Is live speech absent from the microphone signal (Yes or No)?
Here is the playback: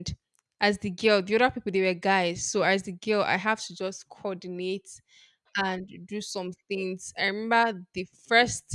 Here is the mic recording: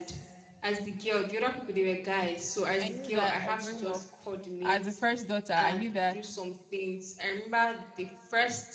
No